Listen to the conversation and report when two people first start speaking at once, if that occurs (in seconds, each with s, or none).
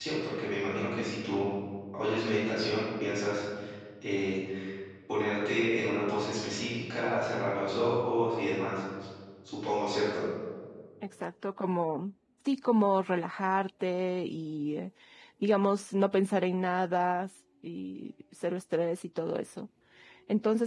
none